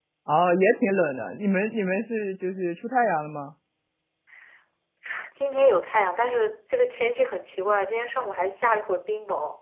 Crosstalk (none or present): none